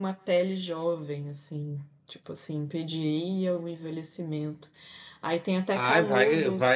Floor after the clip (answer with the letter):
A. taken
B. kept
A